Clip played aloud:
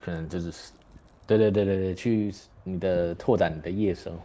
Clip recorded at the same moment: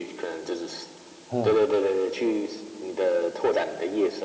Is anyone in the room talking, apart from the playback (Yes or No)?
Yes